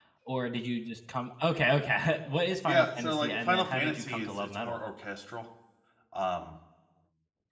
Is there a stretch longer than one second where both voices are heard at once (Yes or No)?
Yes